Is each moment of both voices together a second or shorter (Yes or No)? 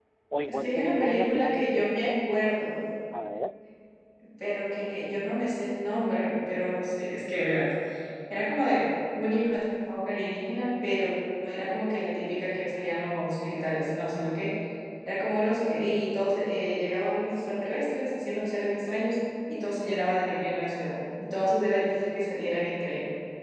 No